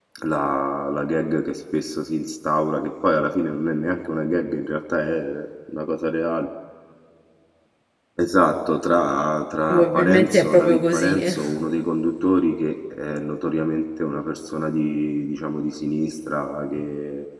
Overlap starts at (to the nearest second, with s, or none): 10 s